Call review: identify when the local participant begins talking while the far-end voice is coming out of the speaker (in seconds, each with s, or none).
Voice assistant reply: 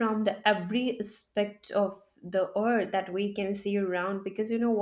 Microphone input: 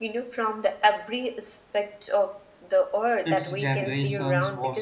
3.2 s